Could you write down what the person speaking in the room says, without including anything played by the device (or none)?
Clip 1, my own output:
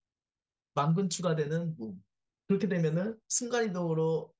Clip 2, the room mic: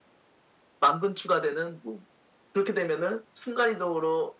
none